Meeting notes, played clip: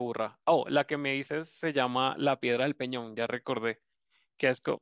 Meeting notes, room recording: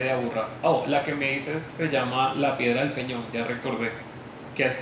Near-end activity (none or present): none